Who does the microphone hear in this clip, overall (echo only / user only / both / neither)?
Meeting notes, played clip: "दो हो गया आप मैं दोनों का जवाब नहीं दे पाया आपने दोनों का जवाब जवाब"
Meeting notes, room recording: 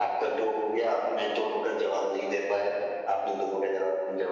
echo only